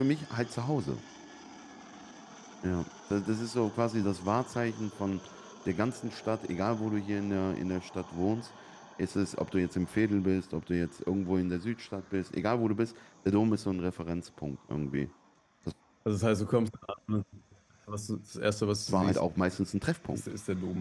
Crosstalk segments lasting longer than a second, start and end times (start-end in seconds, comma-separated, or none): none